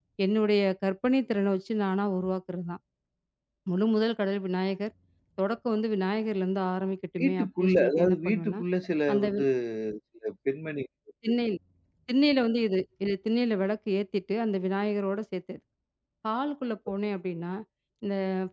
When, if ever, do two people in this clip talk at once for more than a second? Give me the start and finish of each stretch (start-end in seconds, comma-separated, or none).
7.2-8.6